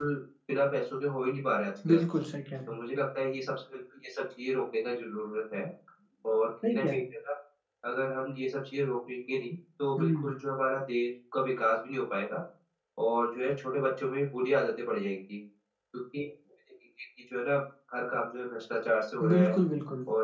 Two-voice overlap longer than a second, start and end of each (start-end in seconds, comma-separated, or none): none